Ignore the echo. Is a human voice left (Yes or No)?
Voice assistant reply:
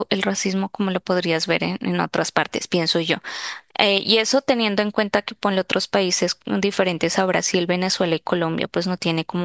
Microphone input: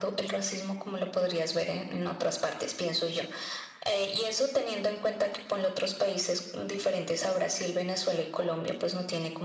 No